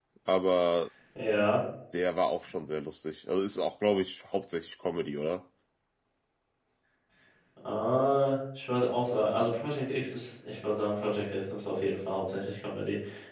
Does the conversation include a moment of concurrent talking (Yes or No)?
No